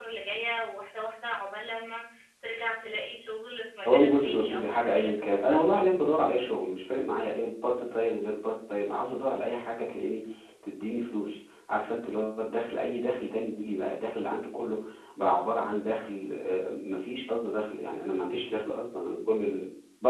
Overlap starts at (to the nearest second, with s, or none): 4 s